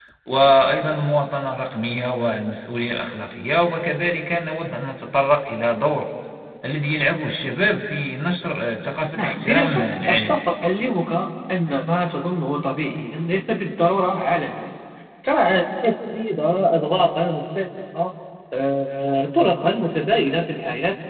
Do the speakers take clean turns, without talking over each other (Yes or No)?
No